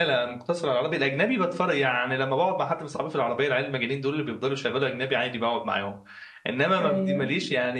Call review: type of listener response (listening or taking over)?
listening